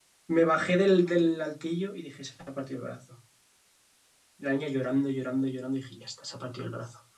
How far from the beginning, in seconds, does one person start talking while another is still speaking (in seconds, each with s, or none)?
none